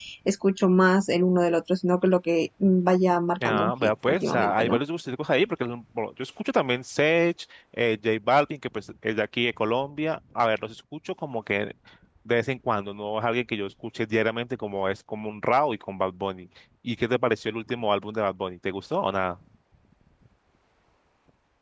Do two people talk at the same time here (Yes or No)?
Yes